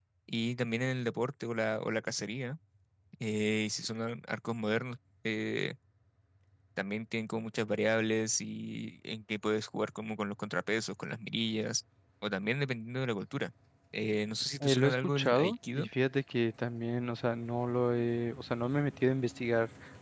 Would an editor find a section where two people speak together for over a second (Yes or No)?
Yes